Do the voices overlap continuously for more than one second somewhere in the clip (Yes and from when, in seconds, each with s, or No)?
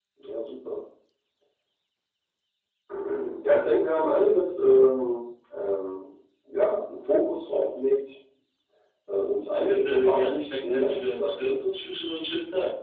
Yes, from 9.6 s